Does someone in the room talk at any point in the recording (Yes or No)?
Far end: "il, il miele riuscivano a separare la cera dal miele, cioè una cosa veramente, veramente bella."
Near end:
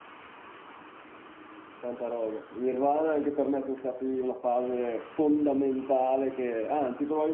Yes